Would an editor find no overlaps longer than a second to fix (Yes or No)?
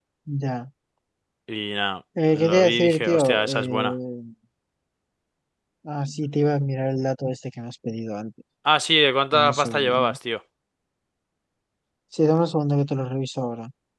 No